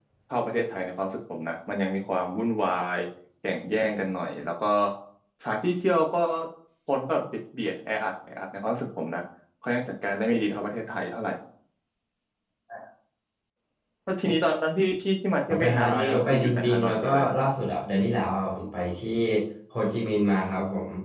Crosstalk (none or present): present